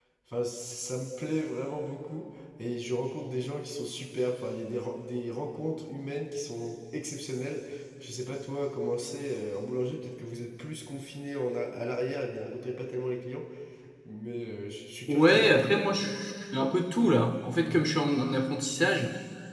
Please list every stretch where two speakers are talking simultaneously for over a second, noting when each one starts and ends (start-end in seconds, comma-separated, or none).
none